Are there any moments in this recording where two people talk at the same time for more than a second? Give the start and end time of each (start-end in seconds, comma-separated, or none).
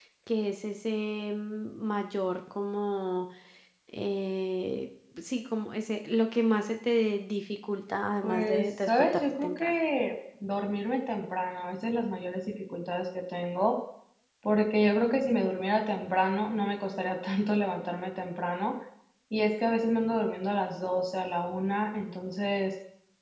8.2-9.8